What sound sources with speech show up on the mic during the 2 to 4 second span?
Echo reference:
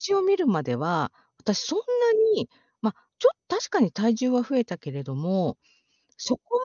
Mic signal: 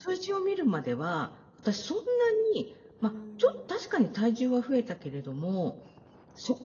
both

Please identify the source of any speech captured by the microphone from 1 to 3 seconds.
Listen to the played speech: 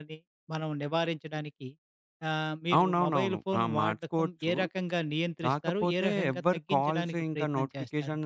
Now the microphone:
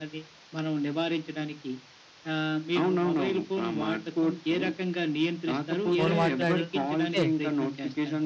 echo only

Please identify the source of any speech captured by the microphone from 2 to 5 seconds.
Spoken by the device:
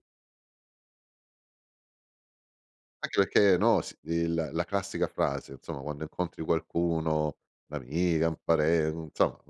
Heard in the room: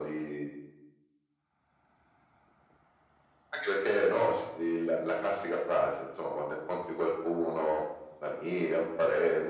echo only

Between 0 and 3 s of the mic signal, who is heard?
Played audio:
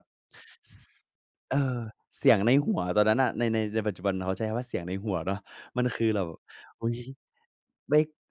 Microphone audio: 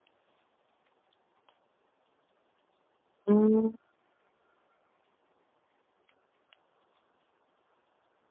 neither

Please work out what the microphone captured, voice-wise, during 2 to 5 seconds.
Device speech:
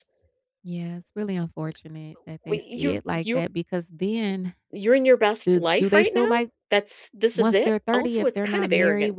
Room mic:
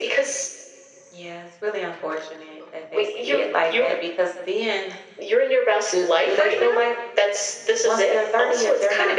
echo only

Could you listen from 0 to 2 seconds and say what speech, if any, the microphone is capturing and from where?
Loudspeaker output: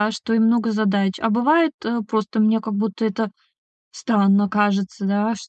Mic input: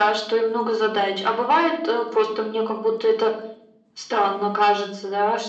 echo only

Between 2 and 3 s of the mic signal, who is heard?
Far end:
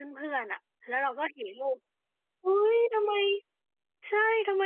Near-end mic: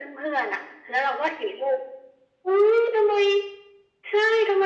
echo only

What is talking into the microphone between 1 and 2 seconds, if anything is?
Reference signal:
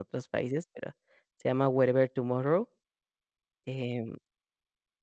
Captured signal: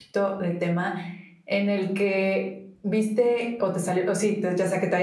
user only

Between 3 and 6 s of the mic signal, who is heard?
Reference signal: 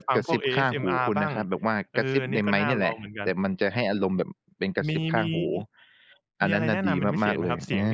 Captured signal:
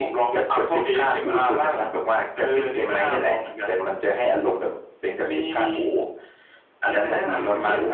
echo only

